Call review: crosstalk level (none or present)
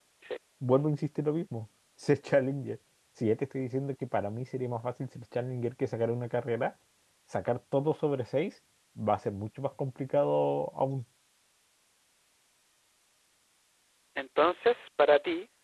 none